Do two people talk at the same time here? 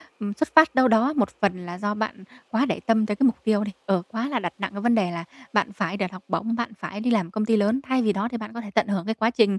No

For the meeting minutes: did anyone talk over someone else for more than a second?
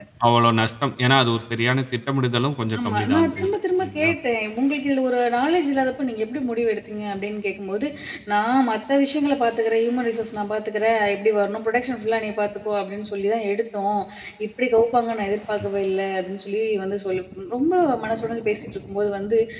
Yes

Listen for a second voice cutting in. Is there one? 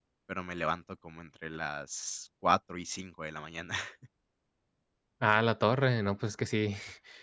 No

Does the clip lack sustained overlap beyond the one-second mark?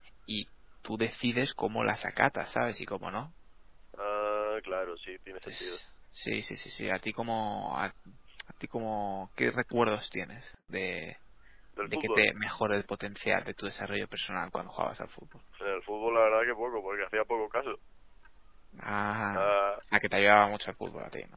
Yes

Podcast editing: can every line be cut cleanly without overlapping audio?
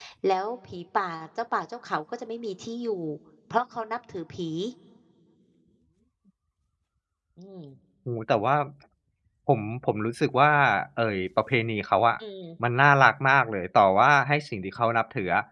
Yes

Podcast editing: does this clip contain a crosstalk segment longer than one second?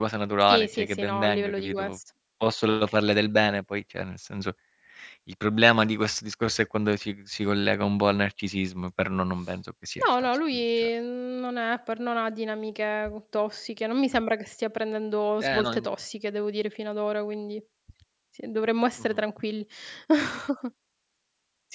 Yes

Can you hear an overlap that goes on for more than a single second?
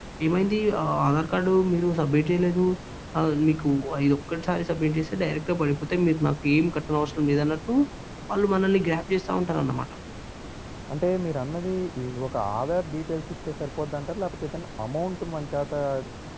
No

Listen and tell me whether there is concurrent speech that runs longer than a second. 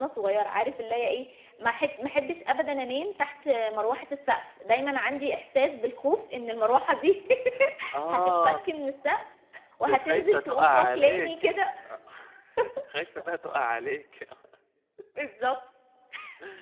Yes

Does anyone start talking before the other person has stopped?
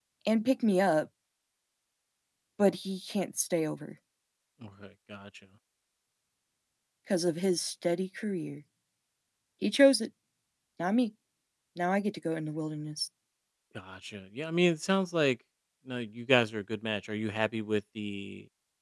No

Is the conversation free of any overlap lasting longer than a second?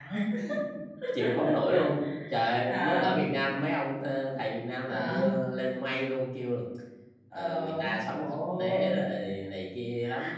No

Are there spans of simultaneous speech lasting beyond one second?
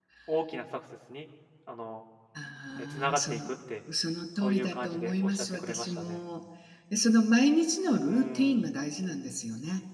Yes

